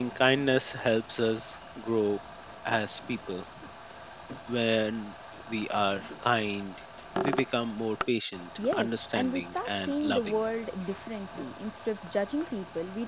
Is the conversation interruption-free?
No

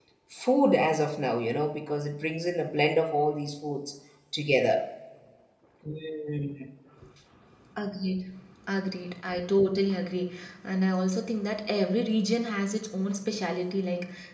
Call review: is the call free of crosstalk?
Yes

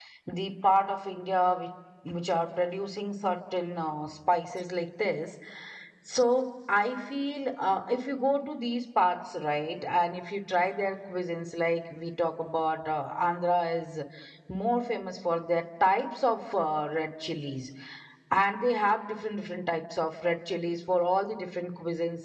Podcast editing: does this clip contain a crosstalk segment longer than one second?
No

